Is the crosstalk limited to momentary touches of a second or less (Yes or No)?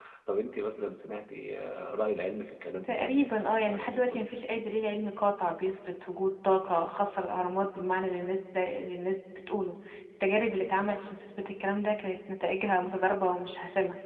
No